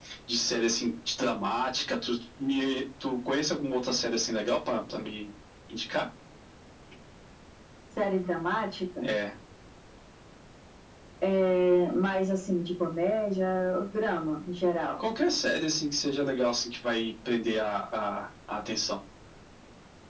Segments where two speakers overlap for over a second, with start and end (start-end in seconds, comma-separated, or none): none